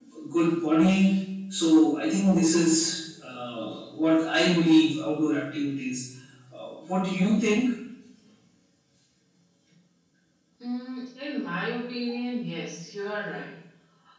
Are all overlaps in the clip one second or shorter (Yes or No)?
Yes